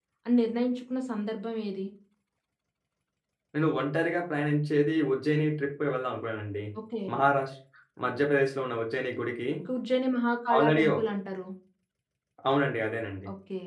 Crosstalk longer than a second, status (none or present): none